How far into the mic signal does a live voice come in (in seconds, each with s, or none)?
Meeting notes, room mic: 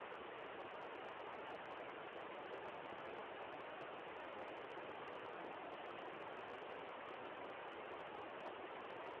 none